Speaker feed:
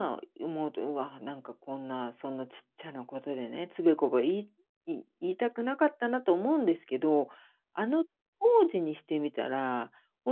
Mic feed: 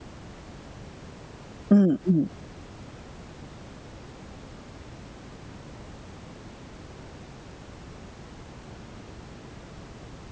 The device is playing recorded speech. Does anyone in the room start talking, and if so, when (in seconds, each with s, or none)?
1.7 s